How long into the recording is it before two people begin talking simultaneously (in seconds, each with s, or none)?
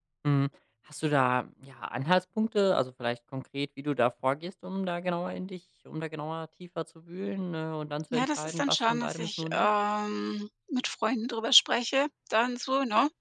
8.1 s